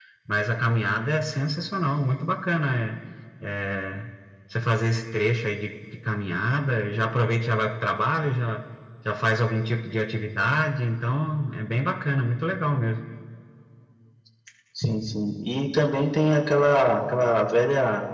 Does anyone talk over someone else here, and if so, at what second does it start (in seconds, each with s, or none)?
none